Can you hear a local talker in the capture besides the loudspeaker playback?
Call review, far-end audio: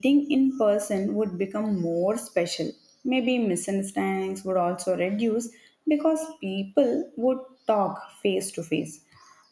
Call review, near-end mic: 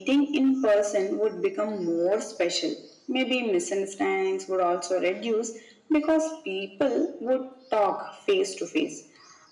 No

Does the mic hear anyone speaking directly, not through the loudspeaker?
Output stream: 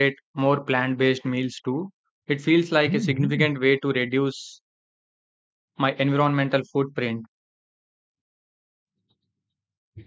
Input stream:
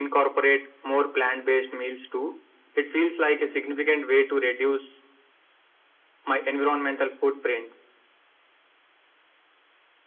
No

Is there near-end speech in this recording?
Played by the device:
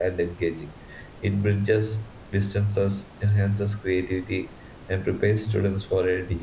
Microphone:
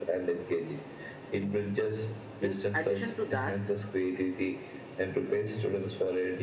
Yes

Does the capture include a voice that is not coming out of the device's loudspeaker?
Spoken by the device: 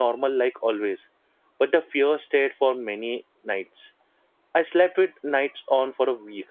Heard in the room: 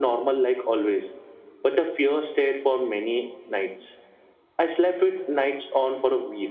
No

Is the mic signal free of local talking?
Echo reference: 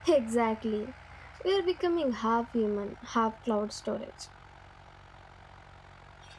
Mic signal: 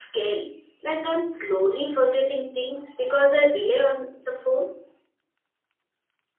No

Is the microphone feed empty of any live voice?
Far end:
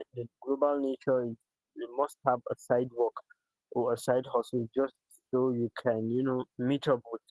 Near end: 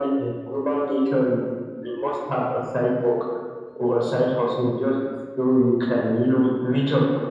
Yes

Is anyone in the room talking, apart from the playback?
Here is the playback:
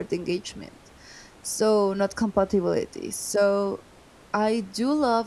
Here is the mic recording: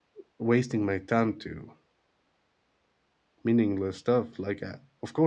Yes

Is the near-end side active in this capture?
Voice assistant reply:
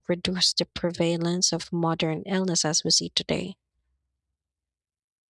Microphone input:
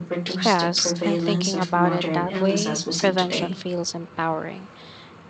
Yes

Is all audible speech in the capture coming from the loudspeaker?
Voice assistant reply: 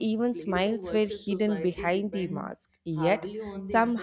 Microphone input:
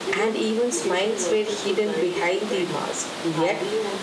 Yes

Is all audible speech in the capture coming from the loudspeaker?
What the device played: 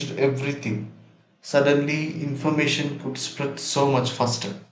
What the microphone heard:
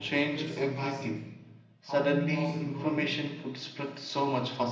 No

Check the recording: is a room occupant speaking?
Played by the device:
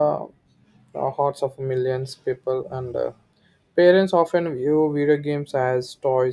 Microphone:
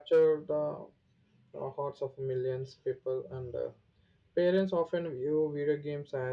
No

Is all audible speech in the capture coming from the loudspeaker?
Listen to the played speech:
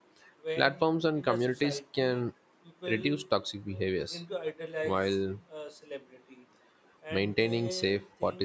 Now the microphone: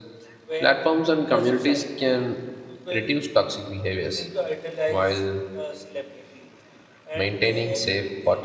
Yes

